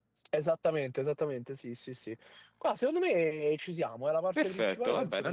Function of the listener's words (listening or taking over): taking over